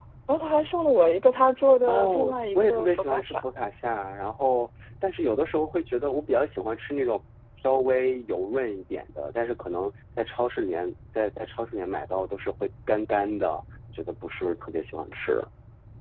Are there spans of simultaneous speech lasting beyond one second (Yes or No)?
Yes